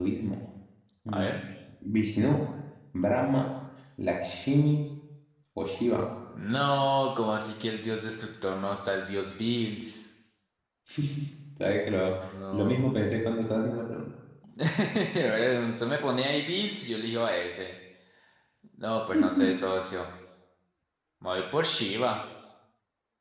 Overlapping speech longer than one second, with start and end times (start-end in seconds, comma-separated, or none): none